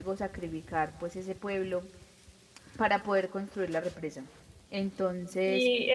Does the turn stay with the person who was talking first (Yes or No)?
No